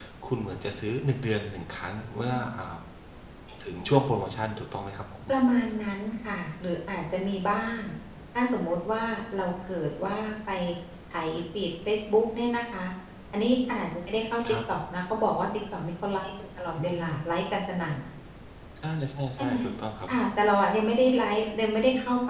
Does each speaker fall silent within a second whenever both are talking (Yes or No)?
Yes